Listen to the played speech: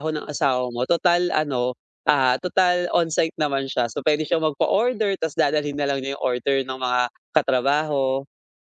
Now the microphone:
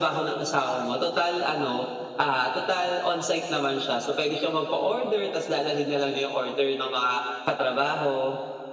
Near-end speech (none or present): none